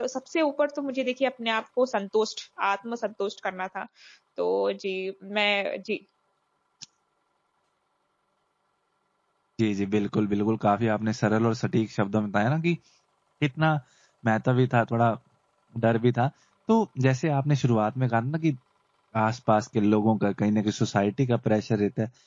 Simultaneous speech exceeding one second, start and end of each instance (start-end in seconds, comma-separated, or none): none